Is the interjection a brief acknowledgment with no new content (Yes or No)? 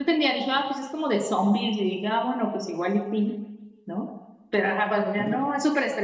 Yes